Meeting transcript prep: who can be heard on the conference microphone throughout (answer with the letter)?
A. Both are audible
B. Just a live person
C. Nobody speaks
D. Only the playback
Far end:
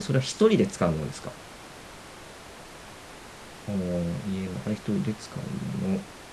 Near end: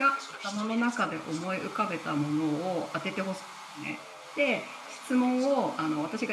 A